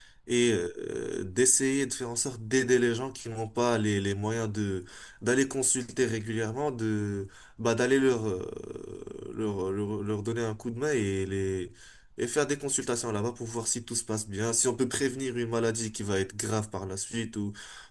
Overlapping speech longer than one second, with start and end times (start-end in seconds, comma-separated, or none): none